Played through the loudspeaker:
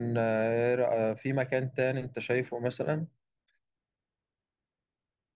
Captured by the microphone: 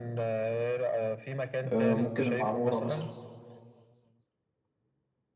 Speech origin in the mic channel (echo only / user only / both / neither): both